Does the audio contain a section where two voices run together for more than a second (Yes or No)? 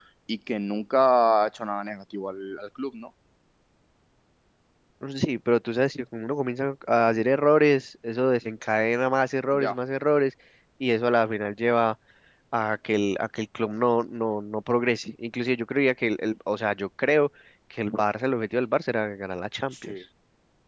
No